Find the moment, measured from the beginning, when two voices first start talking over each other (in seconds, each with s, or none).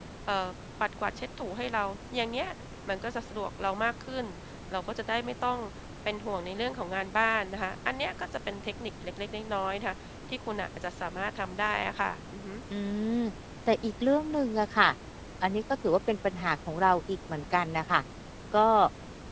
none